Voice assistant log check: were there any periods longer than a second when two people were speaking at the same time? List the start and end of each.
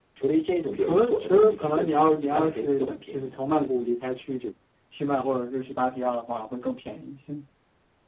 0.8-3.4

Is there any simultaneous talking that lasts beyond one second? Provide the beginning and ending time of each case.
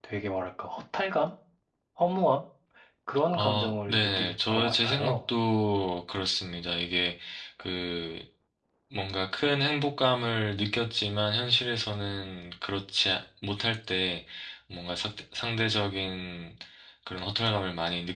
3.3-5.1

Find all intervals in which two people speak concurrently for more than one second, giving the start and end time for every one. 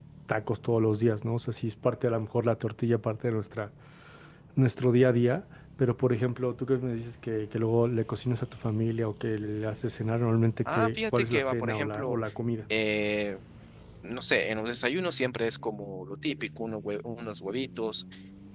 10.7-12.2

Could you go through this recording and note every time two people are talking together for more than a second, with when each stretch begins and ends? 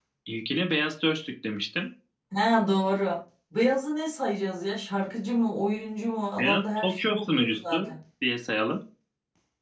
6.4-7.8

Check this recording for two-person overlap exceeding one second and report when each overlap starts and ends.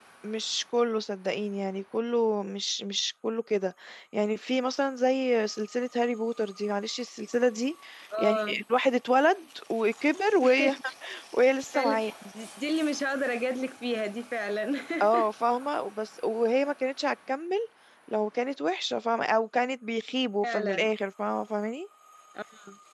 none

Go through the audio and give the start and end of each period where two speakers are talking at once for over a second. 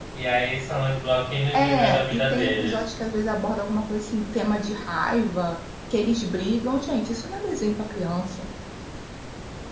1.5-2.8

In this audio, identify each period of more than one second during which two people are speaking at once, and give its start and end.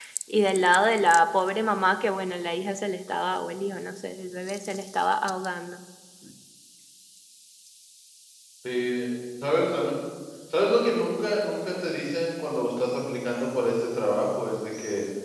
none

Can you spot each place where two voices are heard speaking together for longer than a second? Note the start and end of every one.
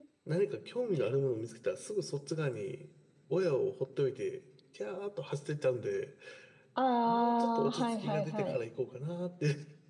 7.1-8.6

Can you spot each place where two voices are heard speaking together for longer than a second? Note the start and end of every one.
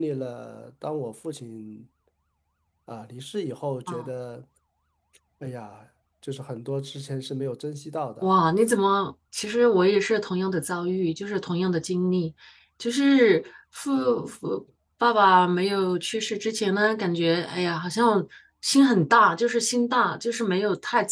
none

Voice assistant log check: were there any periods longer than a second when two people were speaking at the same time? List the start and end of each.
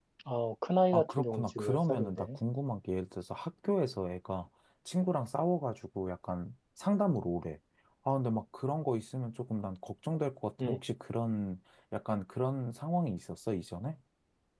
0.9-2.4

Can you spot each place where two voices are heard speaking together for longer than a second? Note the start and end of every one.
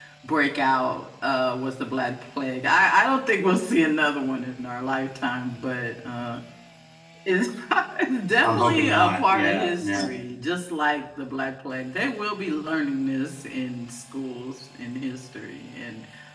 8.4-10.1

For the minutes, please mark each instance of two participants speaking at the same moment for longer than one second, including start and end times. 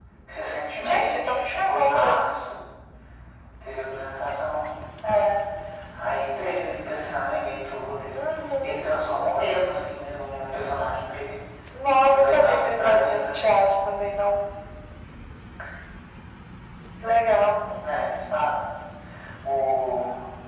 0.8-2.2, 12.0-13.4

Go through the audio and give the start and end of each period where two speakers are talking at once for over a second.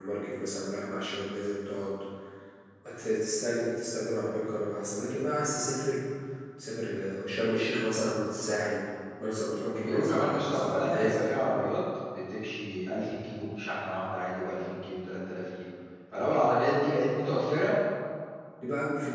9.8-11.2

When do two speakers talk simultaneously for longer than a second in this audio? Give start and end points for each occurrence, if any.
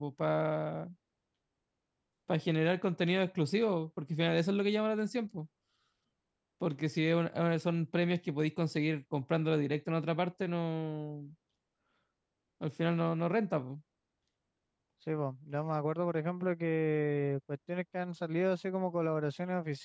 none

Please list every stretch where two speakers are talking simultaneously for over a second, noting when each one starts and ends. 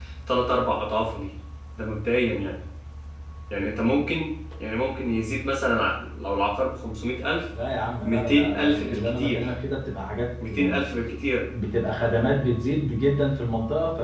8.0-9.5

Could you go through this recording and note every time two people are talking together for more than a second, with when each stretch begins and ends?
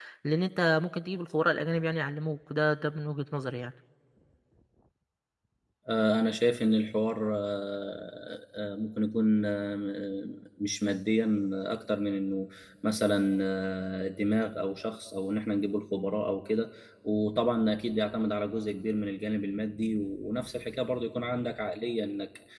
none

